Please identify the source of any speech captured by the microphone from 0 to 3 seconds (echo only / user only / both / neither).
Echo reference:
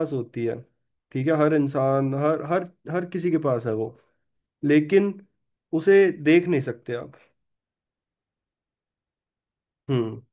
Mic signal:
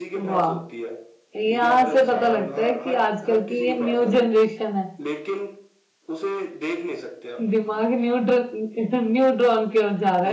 both